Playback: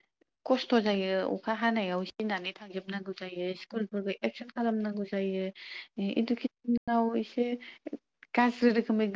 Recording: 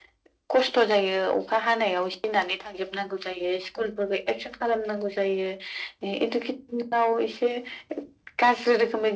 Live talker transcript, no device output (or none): none